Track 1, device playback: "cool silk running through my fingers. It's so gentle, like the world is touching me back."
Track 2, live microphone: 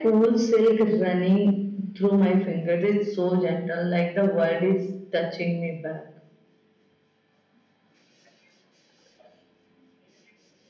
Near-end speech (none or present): none